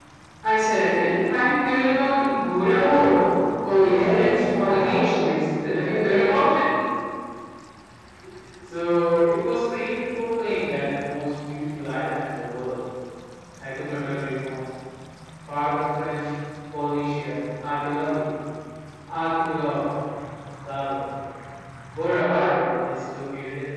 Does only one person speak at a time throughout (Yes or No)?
No